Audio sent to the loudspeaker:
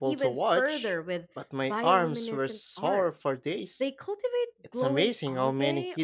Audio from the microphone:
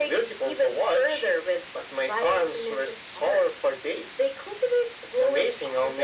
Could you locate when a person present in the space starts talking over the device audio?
none

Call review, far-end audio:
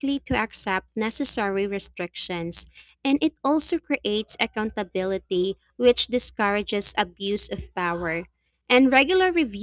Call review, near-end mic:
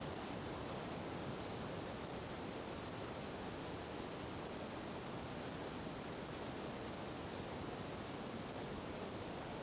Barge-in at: none

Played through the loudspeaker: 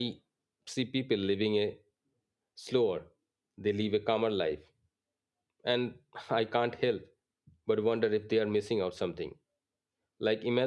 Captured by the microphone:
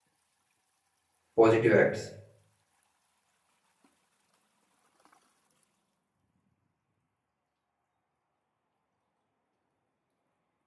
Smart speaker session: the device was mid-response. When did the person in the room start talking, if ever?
1.3 s

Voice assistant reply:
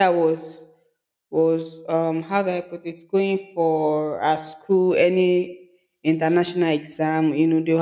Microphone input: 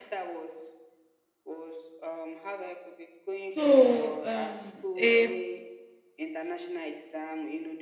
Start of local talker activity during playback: 3.5 s

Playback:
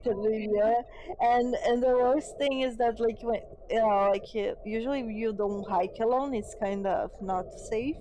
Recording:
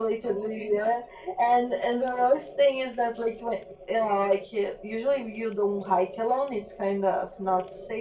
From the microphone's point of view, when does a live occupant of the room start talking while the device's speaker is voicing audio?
none

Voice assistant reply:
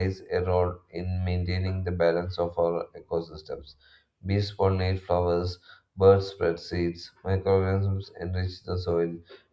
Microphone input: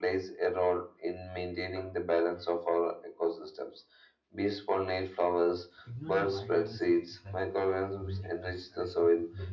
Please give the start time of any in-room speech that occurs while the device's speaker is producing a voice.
5.8 s

